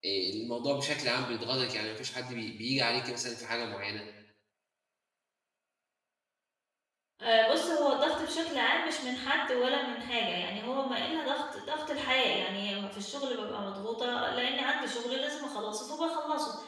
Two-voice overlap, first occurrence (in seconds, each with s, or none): none